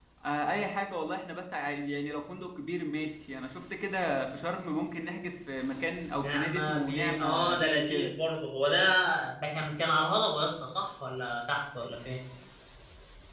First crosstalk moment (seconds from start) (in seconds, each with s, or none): 6.1 s